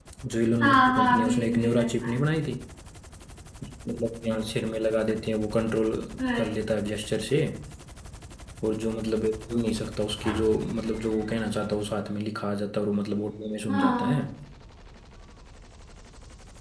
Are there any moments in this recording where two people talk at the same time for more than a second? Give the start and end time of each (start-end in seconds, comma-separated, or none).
0.6-2.2